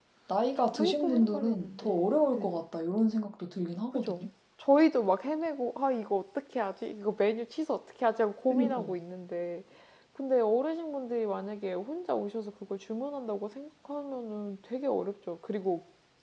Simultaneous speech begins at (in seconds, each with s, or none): 0.6 s